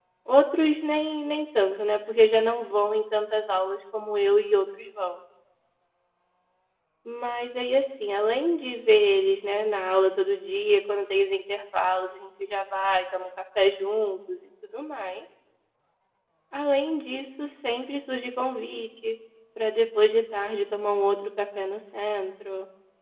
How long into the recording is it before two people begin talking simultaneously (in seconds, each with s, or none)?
none